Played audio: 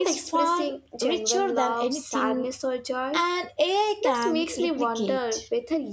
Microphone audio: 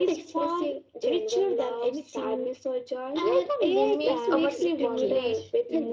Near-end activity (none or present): present